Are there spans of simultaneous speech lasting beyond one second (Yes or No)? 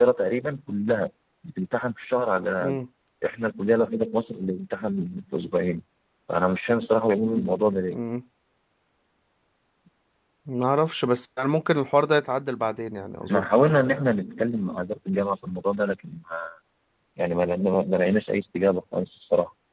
No